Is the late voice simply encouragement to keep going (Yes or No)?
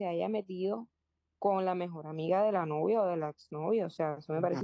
No